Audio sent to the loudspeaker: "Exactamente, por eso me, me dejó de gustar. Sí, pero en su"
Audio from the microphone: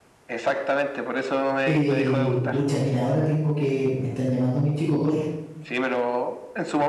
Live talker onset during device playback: 2 s

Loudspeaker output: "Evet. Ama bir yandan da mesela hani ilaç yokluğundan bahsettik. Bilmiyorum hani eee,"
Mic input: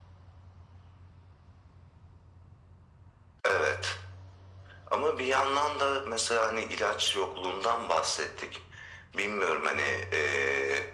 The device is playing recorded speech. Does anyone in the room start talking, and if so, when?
none

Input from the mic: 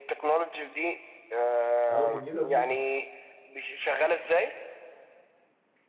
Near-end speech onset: 2 s

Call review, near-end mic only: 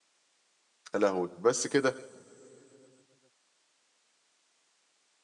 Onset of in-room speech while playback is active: 1 s

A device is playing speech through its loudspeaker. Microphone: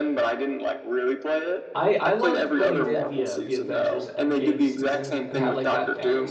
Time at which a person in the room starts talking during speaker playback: 2 s

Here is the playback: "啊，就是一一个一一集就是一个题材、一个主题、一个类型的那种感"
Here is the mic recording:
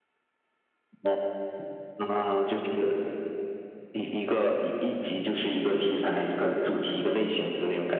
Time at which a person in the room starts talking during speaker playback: none

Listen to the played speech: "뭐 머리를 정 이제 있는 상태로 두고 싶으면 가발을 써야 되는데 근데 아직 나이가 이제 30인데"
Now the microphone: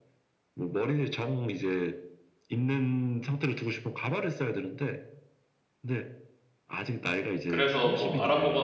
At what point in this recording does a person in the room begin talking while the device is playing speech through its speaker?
7 s

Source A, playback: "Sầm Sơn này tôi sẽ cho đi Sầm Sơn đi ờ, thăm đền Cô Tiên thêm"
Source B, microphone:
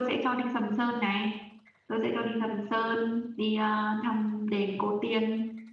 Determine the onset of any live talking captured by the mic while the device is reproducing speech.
none

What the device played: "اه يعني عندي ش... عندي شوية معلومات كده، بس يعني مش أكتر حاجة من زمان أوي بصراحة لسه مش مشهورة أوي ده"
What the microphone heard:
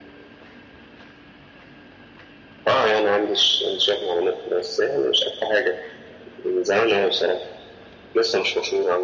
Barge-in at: none

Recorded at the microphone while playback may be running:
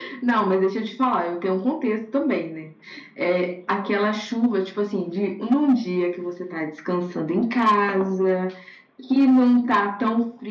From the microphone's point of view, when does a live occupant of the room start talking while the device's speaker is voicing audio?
none

